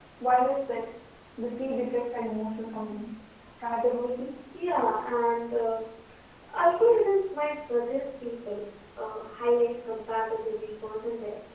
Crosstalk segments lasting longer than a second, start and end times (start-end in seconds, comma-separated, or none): none